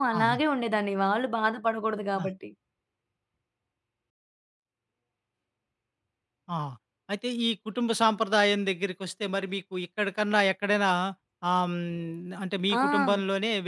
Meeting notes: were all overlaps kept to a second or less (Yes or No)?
Yes